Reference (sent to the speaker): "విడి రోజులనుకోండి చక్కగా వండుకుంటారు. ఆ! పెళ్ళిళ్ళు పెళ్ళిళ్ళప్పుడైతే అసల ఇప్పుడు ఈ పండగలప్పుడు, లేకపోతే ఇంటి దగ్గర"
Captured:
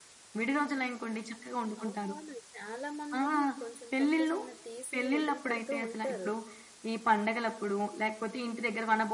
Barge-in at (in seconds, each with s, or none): 1.8 s